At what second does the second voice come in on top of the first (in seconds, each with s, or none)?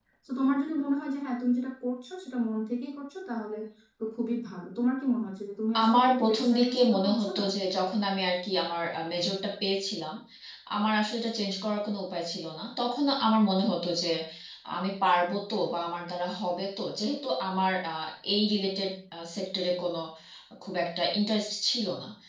5.8 s